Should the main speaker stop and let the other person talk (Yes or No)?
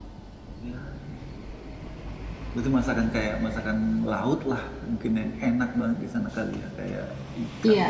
Yes